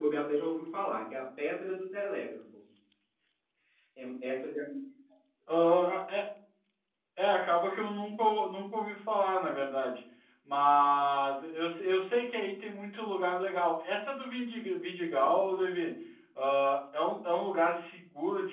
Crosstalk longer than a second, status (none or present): none